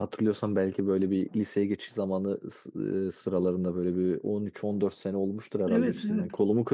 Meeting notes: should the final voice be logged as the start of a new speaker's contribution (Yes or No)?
No